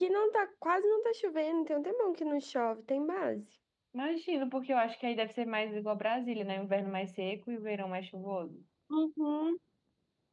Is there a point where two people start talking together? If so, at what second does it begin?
none

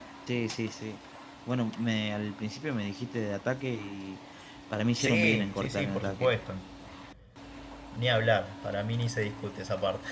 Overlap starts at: 5.0 s

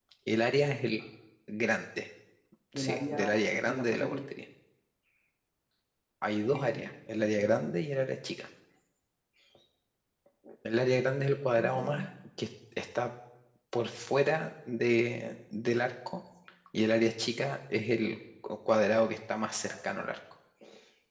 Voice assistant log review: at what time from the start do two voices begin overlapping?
2.7 s

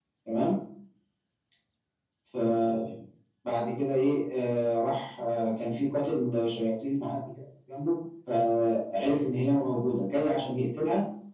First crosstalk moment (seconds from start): none

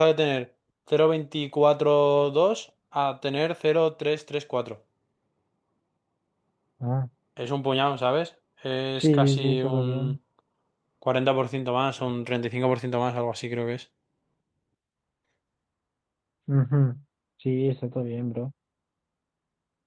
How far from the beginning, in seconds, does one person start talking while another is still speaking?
8.9 s

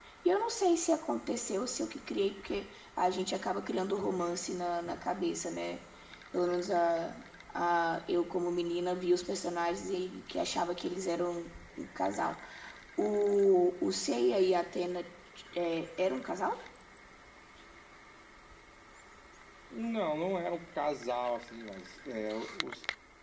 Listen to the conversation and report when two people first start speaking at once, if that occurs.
none

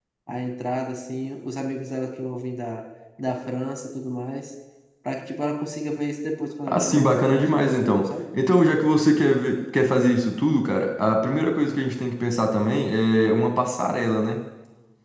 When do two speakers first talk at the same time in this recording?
6.7 s

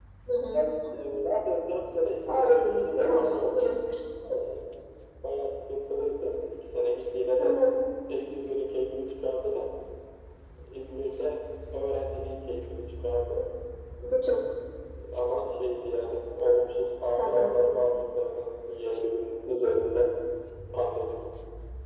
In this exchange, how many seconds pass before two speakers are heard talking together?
2.3 s

